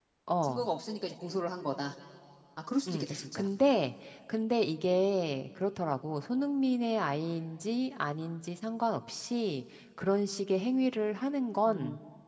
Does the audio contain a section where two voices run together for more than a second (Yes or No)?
No